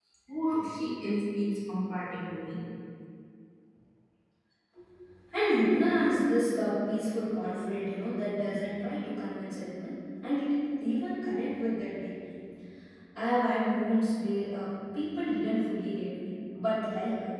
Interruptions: none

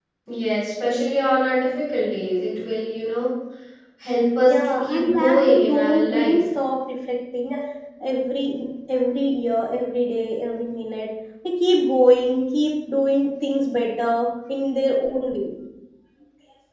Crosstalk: present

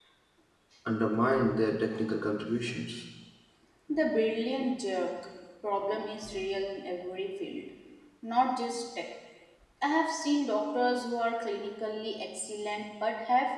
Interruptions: none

